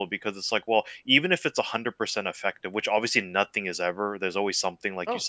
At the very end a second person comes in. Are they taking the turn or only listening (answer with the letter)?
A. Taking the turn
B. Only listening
B